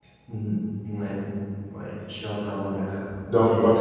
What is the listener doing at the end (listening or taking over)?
taking over